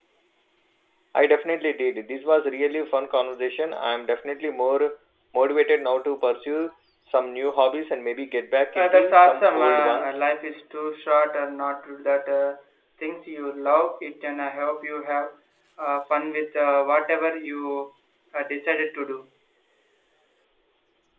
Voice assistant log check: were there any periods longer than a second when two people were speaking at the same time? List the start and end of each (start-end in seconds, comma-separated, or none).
8.8-10.2